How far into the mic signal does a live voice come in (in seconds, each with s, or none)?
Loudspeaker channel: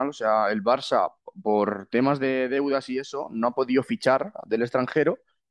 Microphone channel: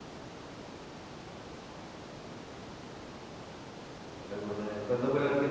4.2 s